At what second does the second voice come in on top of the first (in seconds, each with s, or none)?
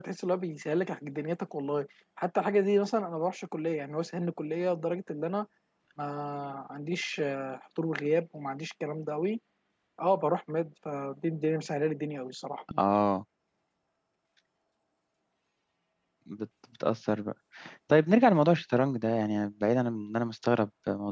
none